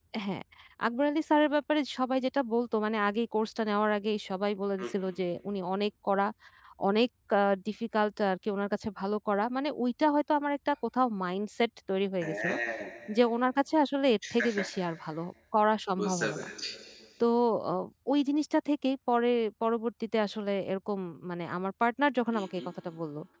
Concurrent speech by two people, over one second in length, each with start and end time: none

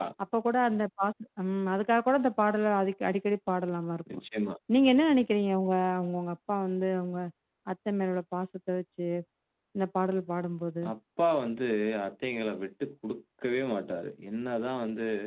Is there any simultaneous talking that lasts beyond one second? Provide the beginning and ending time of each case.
none

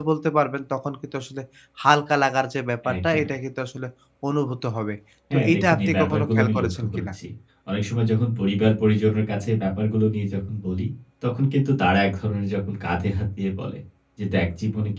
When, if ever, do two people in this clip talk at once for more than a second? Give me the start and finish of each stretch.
5.3-7.1

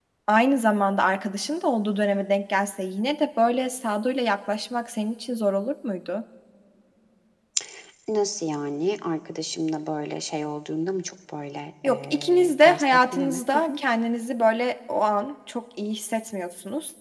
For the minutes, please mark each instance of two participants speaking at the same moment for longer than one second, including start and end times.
11.8-13.7

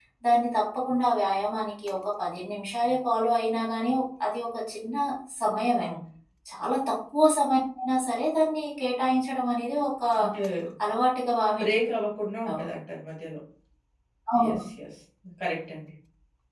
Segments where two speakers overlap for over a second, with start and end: none

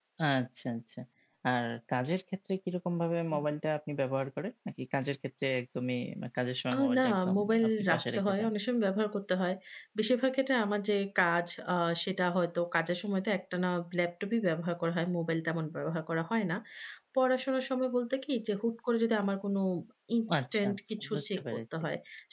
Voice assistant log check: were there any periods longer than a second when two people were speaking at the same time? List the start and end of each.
6.7-8.5, 20.4-21.6

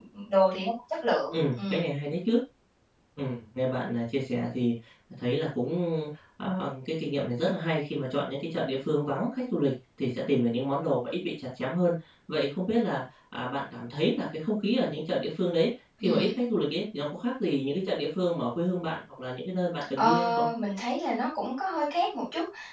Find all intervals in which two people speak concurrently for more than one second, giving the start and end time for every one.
none

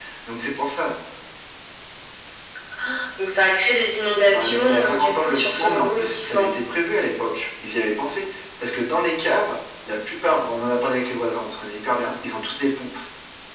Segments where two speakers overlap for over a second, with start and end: 4.3-6.5

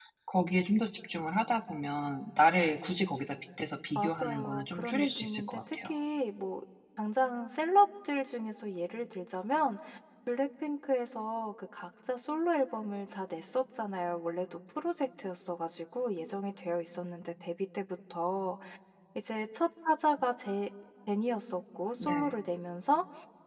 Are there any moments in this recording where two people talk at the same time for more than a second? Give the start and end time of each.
4.0-5.9

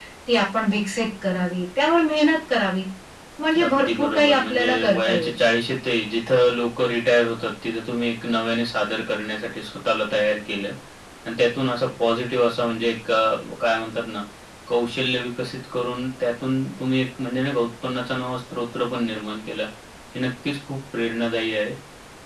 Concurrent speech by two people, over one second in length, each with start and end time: 3.6-5.3

